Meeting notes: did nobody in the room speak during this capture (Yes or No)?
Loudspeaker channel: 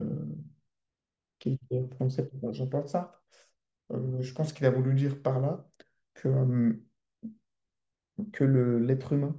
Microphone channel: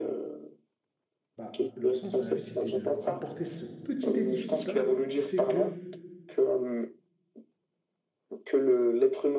No